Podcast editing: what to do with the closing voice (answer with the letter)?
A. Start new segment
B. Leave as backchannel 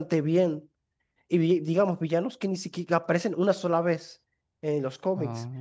B